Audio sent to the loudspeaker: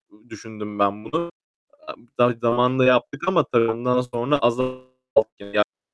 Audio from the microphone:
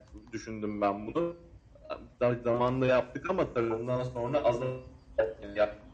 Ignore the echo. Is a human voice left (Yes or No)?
No